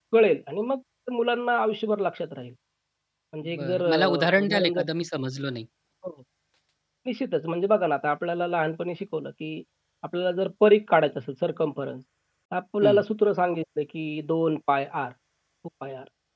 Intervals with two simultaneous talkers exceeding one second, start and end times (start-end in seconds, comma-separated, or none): 3.4-4.8